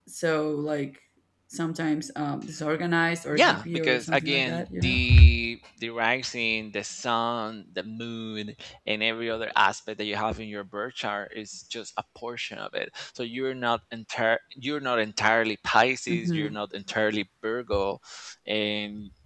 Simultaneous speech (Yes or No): Yes